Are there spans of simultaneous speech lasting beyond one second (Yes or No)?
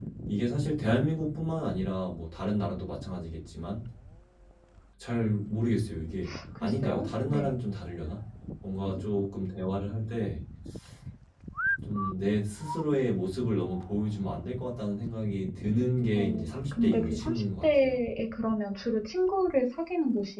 Yes